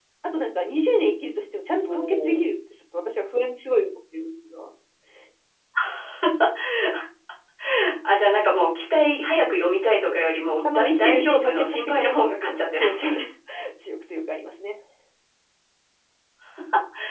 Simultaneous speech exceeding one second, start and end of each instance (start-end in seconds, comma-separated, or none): 10.7-13.2